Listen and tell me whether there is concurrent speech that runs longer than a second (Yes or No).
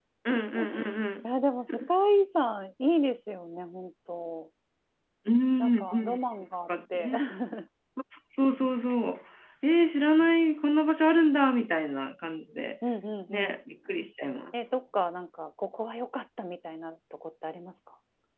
No